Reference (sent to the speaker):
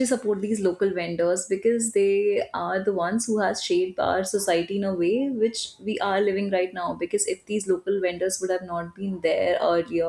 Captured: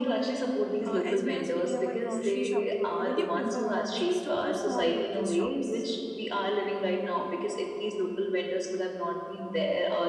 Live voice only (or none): uh, as we are speaking about grocery shopping only, what do you prefer more, big stores or small local shops?